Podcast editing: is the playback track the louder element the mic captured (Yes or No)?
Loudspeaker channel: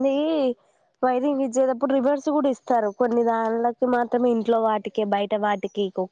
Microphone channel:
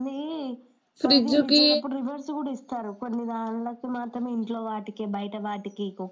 No